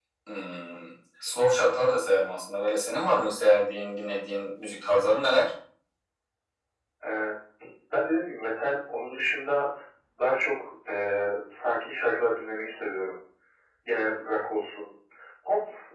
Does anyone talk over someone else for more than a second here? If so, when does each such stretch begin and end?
none

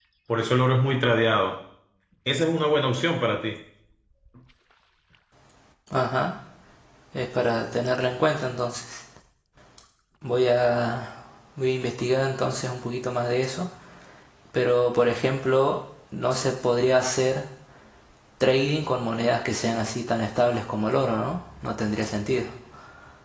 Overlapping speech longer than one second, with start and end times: none

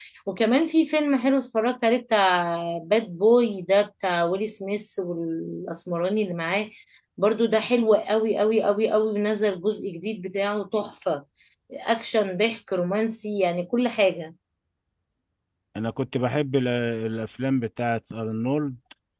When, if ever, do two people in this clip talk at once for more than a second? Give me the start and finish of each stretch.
none

